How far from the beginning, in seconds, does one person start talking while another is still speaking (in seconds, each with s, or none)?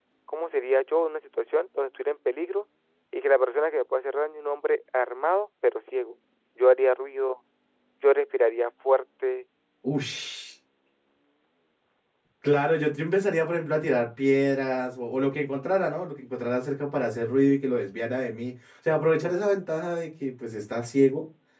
none